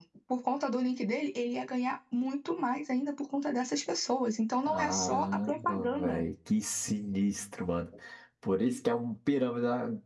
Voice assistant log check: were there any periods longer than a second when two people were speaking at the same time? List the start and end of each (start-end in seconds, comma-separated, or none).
4.6-6.2